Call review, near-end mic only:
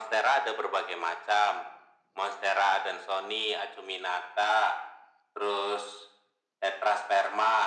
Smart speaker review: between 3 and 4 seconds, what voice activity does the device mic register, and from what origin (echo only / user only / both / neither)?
echo only